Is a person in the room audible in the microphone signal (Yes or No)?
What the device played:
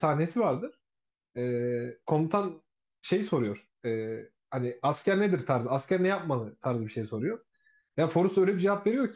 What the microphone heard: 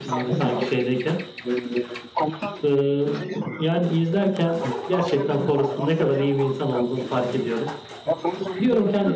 Yes